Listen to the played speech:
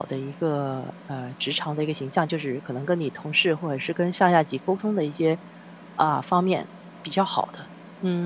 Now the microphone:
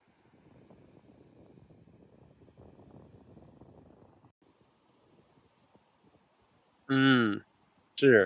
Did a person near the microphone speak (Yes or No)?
Yes